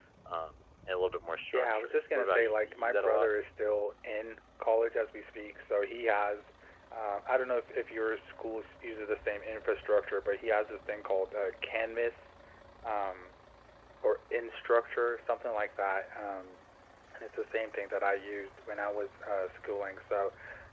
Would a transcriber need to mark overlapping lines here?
Yes, from 1.5 s

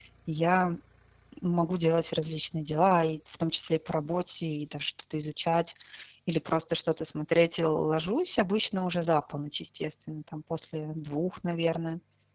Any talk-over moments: No

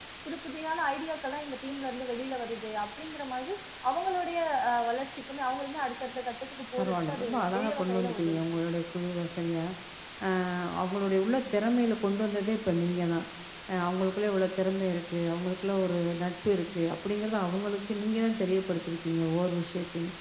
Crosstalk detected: Yes, from 6.8 s

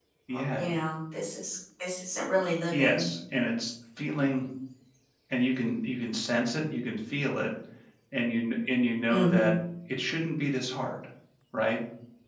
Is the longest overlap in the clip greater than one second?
No

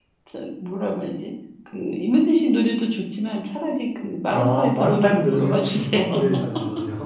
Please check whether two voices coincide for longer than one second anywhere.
Yes, from 4.3 s

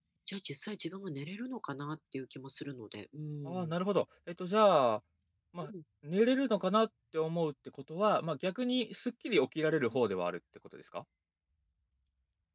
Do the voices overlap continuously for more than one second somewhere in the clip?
No

